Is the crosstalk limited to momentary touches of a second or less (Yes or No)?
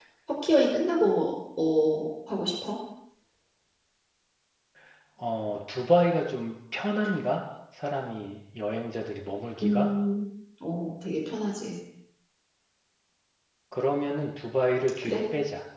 Yes